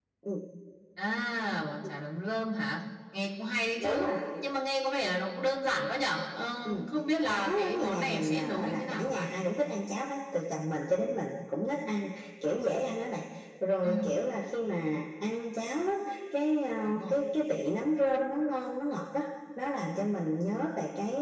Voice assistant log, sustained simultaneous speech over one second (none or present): present